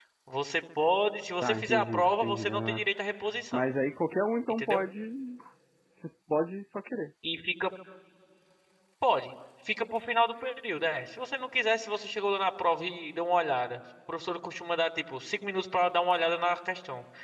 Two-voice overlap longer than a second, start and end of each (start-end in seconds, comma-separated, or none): 1.4-2.9